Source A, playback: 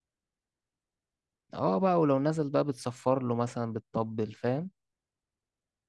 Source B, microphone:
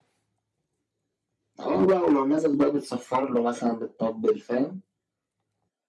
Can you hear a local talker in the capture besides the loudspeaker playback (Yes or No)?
No